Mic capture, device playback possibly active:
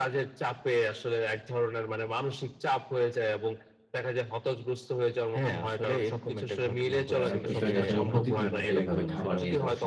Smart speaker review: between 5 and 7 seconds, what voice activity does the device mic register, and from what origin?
echo only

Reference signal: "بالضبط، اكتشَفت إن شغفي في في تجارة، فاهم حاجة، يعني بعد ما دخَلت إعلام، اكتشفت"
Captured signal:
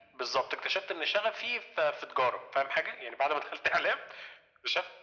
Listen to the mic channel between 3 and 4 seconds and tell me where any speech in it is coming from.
echo only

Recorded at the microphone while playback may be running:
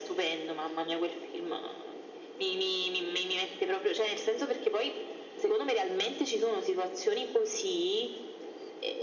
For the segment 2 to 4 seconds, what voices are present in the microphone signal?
echo only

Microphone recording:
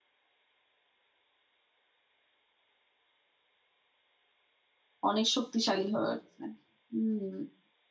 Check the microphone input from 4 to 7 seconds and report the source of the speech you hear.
user only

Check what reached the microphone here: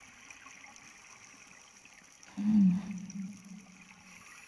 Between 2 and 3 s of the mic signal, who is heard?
user only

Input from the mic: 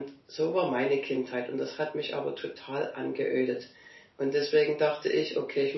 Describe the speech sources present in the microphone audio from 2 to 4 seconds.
echo only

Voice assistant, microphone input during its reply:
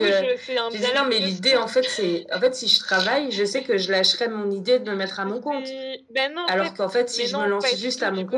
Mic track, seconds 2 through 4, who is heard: echo only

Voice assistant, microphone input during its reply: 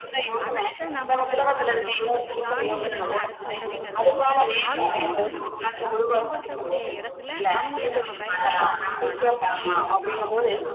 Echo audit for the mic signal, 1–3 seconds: both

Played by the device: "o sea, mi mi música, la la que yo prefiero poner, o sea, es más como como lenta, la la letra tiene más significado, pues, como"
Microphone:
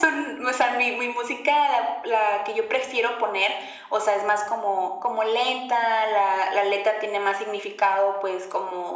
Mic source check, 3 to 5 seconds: echo only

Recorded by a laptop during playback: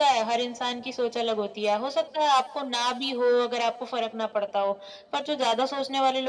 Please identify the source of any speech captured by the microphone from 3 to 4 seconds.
echo only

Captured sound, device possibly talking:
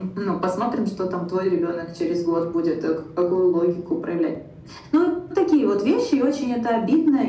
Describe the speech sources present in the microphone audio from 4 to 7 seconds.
echo only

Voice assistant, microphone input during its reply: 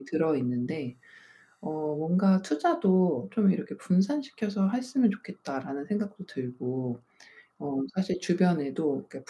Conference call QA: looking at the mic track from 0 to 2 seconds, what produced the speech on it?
user only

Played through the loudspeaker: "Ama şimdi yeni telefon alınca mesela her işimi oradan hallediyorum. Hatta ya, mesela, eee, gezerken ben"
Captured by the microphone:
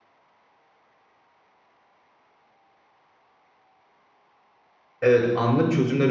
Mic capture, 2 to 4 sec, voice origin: neither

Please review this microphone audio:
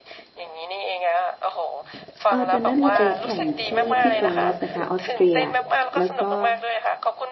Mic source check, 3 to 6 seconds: both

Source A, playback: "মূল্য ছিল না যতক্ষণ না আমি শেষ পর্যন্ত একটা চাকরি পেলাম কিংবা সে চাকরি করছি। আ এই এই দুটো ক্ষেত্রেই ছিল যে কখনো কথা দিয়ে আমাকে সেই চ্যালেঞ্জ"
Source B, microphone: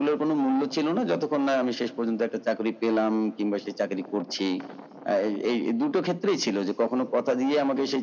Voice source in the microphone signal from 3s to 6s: echo only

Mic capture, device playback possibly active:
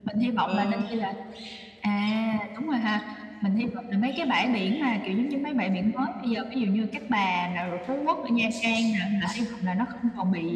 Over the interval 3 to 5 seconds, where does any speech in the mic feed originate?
echo only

